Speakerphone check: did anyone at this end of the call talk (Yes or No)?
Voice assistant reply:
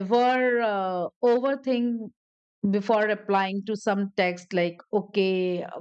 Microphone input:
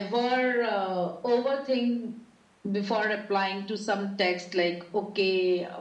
No